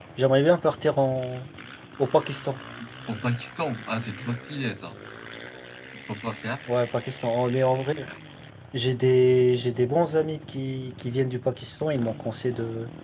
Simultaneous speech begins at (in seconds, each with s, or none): none